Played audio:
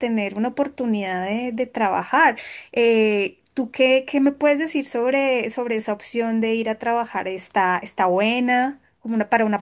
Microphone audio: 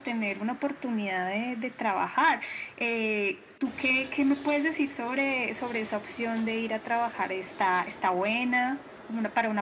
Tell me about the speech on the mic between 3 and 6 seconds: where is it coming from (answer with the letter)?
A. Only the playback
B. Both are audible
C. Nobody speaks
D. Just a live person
A